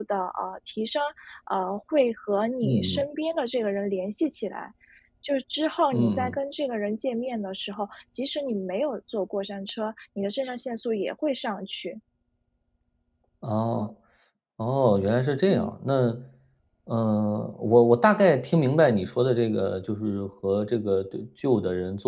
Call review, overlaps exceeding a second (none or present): none